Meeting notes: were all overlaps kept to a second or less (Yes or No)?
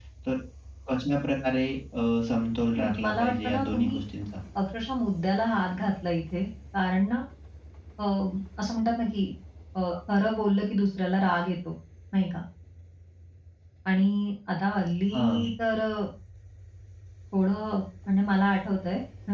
No